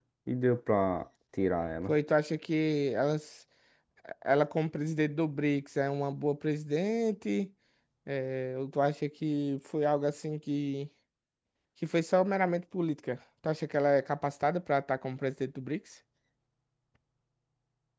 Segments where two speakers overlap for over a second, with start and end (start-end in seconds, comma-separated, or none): none